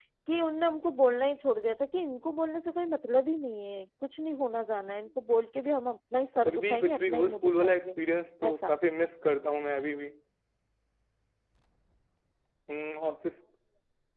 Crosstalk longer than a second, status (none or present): present